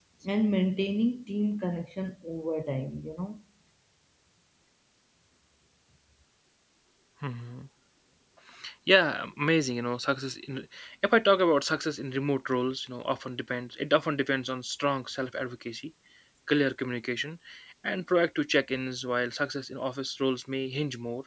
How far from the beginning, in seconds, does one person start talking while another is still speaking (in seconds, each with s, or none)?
none